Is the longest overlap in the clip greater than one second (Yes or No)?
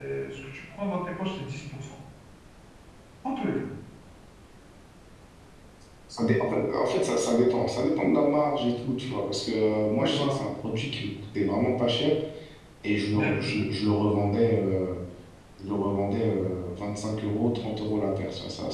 No